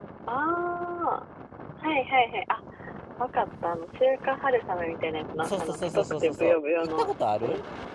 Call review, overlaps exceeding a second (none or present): present